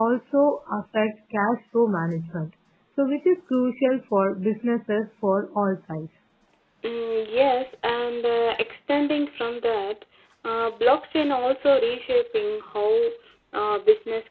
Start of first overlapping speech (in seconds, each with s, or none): none